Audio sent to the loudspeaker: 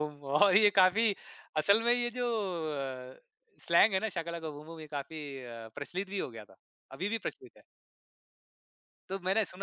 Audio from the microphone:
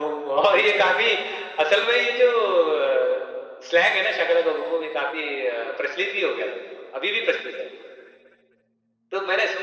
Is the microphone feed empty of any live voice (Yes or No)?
Yes